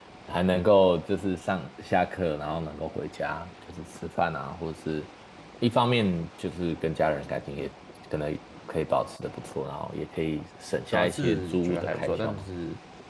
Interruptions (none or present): present